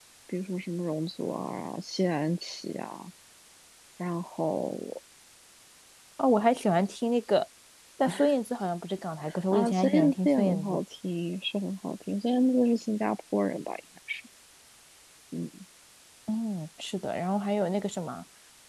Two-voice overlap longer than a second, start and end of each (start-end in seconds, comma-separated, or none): 9.5-10.8